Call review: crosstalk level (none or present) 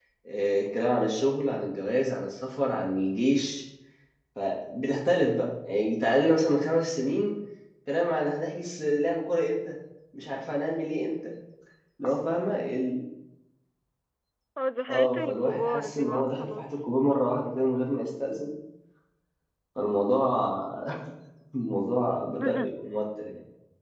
present